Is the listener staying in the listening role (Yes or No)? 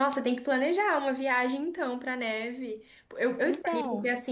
Yes